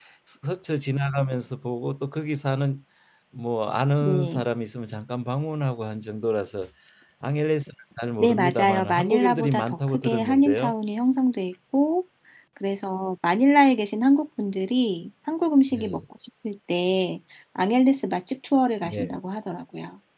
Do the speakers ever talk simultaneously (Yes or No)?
Yes